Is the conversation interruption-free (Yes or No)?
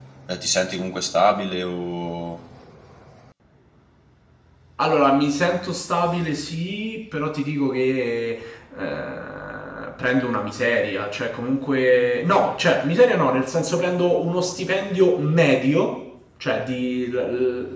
Yes